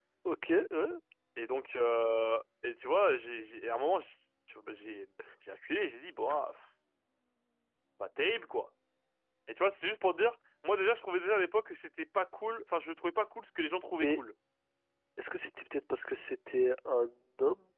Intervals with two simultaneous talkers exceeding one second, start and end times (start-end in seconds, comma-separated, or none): none